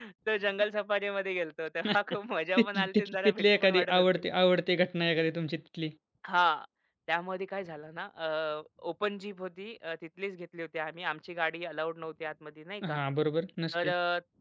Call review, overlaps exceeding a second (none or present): present